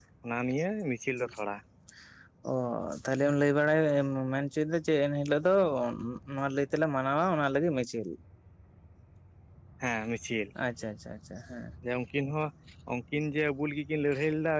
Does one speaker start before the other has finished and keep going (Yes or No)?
No